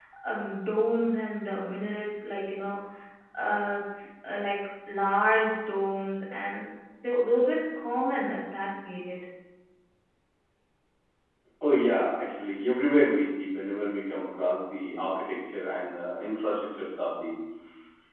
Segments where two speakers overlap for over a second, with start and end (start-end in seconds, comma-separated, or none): none